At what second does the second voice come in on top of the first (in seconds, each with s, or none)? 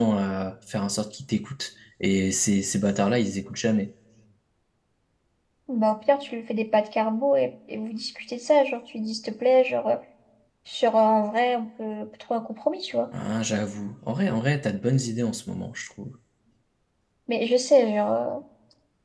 none